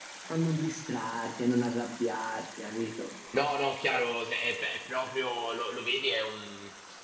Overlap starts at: none

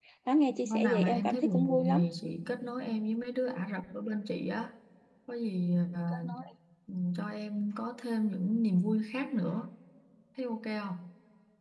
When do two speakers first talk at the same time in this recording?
1 s

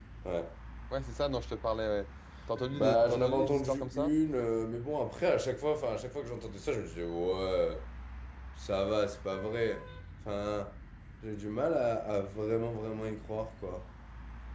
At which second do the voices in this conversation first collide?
3 s

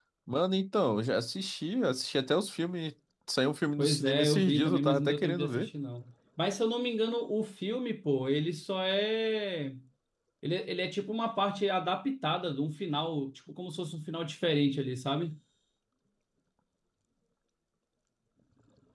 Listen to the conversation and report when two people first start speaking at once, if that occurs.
4 s

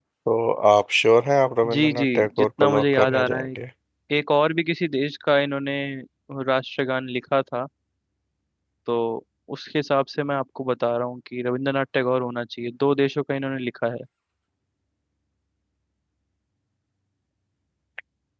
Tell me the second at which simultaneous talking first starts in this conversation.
2 s

